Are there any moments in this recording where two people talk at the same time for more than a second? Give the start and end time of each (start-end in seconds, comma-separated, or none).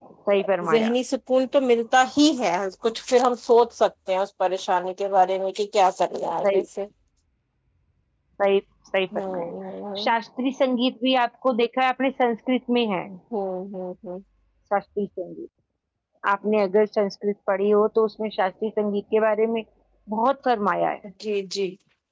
none